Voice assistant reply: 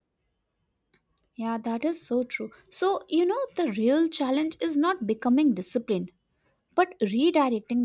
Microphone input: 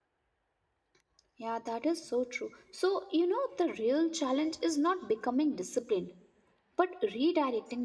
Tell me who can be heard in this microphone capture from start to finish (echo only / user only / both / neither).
echo only